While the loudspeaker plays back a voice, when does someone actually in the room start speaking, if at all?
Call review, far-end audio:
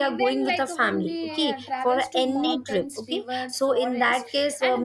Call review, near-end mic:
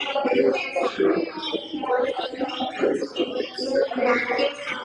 none

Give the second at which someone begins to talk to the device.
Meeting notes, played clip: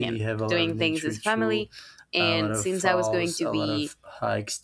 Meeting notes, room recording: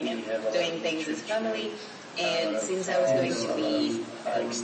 3.0 s

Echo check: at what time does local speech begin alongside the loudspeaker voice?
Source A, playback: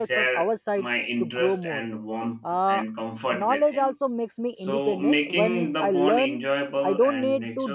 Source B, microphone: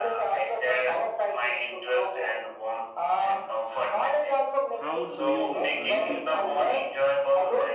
4.7 s

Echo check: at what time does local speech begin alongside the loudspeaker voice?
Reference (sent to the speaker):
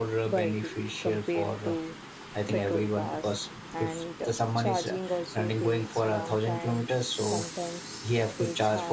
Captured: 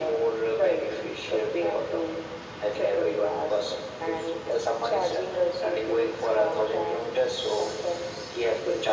none

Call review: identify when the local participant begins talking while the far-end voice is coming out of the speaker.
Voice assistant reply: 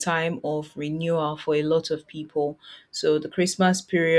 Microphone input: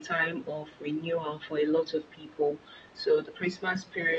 none

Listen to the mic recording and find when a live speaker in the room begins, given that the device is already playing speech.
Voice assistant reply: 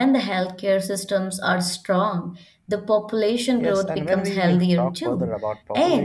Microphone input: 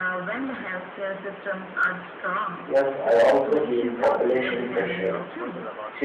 2.6 s

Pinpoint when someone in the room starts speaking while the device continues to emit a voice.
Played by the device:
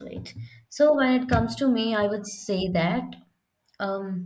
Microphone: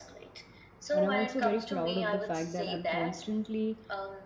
0.9 s

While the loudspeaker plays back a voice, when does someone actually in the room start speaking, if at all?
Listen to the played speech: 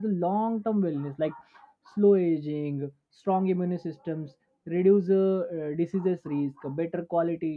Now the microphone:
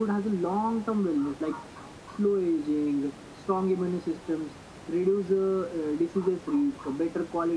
none

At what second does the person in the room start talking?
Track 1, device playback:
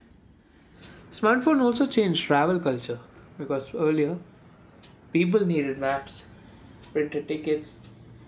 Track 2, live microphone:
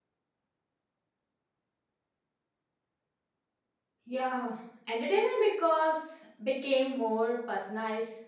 4.0 s

